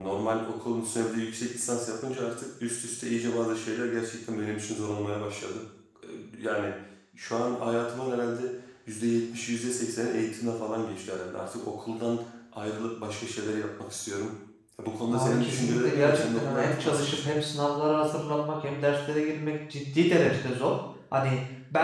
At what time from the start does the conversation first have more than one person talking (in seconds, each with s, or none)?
15.1 s